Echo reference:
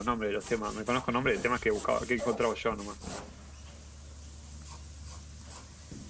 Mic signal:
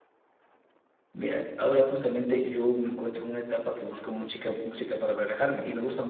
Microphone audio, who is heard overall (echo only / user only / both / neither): user only